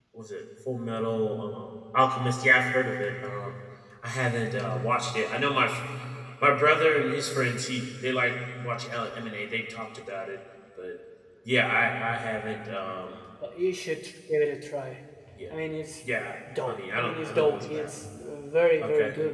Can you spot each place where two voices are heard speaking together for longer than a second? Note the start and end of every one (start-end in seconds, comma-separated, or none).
16.7-17.9